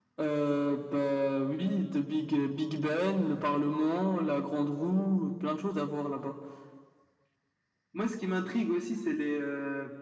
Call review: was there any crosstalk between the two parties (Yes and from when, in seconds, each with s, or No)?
No